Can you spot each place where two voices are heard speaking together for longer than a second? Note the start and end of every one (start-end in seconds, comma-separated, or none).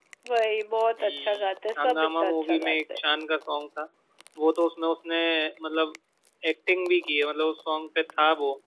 1.0-3.0